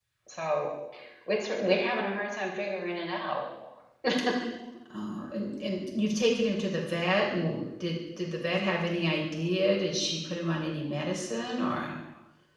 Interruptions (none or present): none